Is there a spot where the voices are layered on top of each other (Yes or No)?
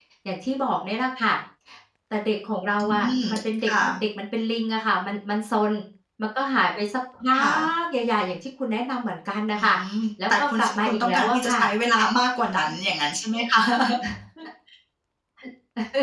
Yes